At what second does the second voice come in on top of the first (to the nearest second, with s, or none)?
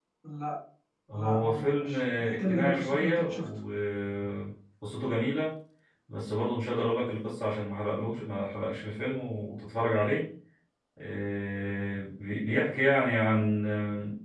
1 s